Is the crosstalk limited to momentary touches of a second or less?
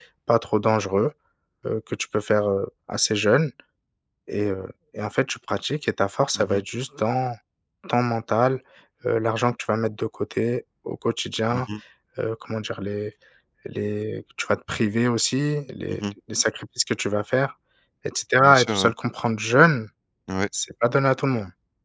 Yes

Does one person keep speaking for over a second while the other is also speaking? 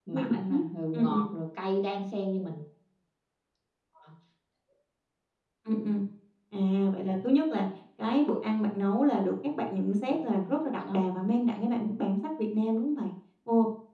No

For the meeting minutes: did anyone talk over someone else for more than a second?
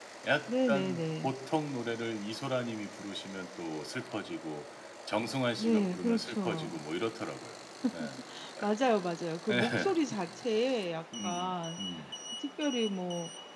Yes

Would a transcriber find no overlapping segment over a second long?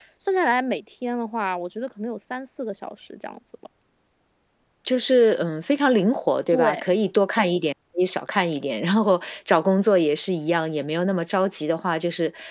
Yes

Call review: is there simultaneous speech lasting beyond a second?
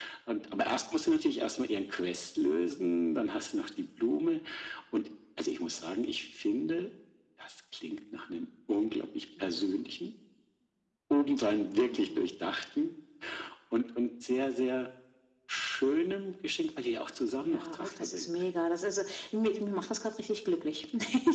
Yes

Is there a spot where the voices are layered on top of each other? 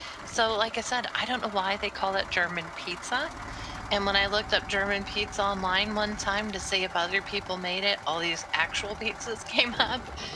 No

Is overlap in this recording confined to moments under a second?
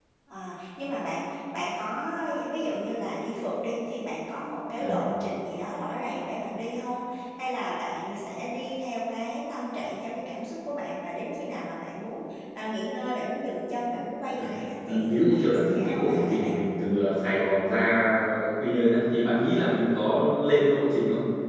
No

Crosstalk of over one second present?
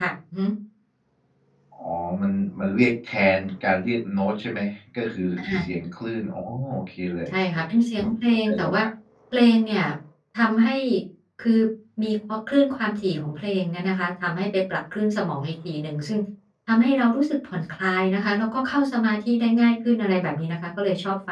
No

